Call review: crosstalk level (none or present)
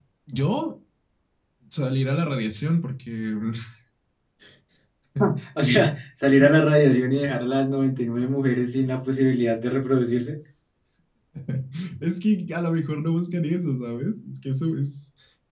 none